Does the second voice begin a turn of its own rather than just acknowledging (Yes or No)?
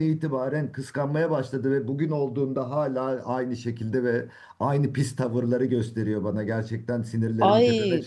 Yes